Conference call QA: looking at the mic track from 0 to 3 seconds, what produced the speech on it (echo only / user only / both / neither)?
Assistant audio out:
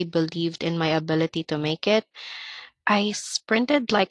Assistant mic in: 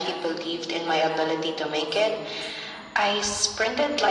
both